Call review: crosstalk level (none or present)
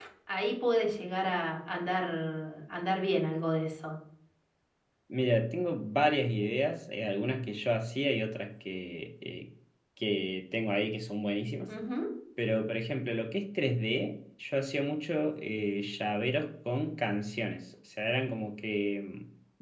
none